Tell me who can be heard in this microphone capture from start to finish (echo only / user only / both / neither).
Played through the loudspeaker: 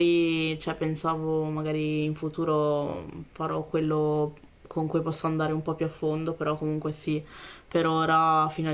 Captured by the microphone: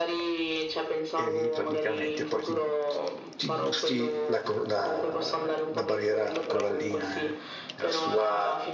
both